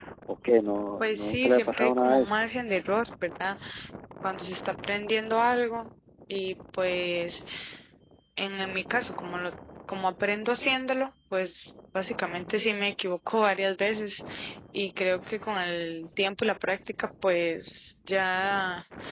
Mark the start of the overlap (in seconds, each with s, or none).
1.0 s